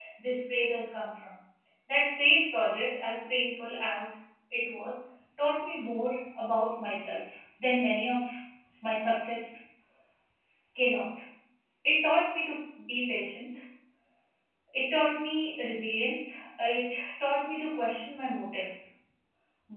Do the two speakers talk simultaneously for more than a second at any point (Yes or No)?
No